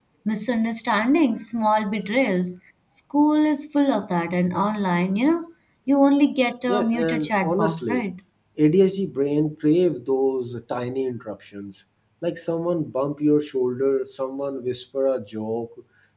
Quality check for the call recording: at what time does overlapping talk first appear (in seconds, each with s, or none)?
6.7 s